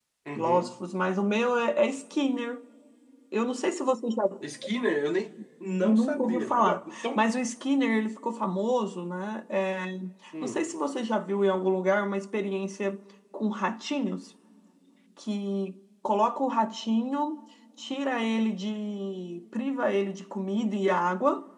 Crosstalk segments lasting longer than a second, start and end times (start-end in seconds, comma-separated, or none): 5.8-7.3